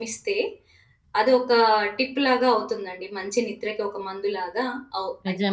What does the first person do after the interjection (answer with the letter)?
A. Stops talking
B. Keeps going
A